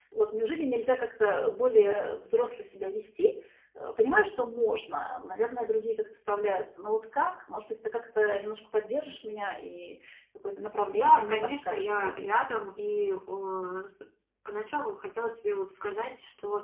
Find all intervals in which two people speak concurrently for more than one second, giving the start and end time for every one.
10.9-12.4

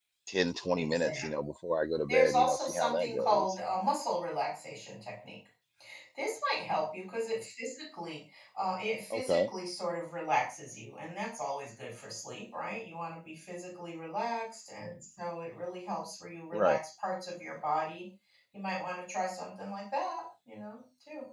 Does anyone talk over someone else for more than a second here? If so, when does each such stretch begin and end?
2.1-3.6

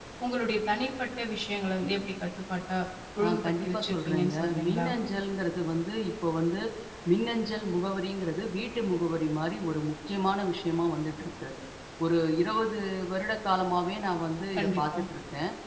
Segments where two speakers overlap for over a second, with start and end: 3.2-4.9

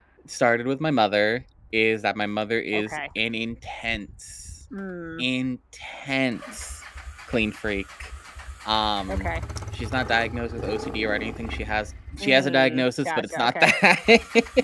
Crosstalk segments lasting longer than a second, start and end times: 12.2-13.5

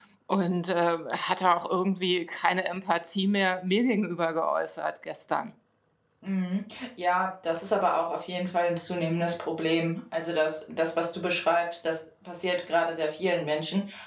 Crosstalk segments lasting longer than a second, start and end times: none

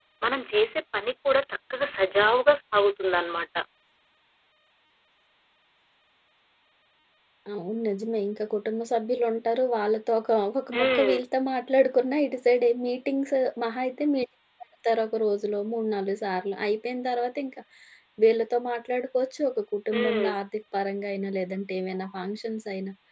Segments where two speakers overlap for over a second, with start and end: none

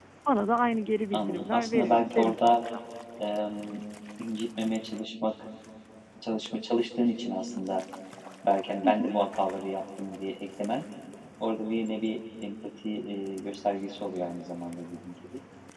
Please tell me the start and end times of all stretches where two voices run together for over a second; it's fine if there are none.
1.1-2.6

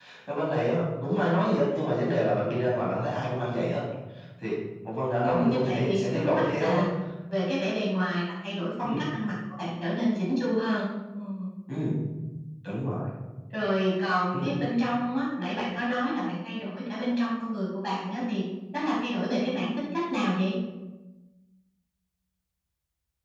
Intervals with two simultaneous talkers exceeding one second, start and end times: 5.2-6.8

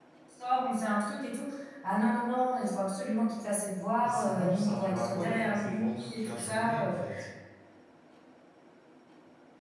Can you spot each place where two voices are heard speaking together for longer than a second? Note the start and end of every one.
4.0-7.0

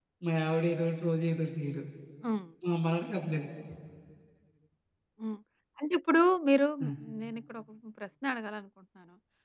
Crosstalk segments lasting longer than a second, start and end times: none

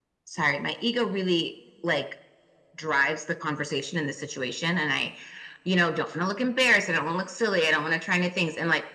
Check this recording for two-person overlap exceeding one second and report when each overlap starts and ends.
none

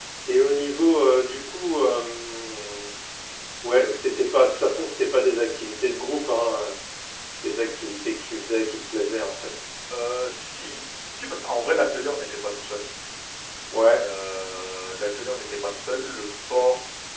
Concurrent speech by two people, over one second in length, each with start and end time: none

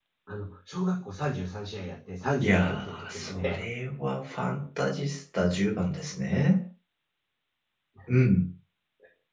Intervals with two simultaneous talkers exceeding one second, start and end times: 2.4-3.6

